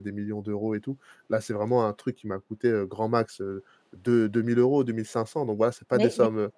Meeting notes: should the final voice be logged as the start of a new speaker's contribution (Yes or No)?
Yes